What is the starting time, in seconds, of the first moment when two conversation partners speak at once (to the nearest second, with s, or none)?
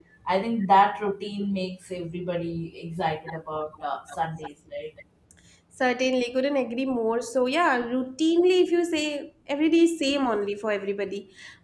none